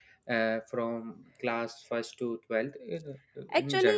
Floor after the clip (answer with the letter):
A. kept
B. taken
B